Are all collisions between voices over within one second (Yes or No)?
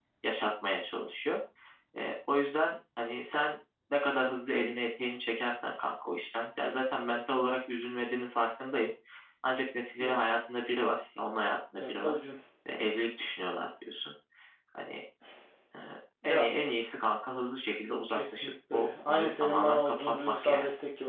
No